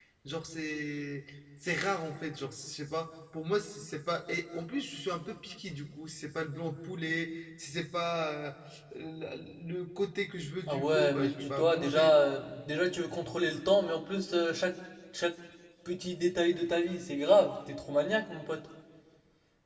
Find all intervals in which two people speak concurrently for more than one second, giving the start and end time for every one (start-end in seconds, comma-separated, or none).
10.7-12.1